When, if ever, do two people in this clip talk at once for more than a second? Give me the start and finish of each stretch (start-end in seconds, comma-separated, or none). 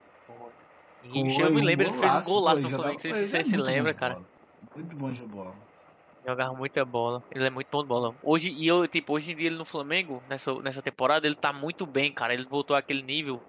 1.1-3.9